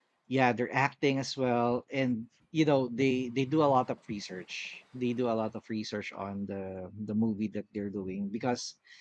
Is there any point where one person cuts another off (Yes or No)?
No